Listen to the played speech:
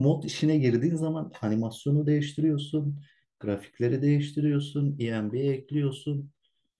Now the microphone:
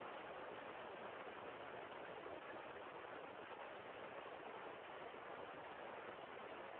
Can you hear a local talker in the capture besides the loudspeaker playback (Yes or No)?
No